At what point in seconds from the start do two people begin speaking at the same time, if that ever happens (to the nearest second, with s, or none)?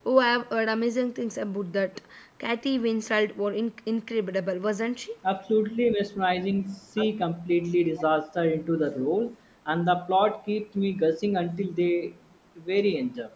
none